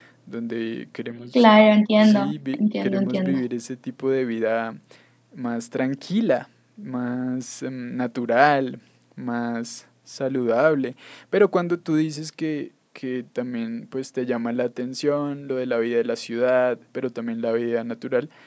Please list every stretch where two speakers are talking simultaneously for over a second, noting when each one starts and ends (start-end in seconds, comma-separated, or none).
2.0-3.4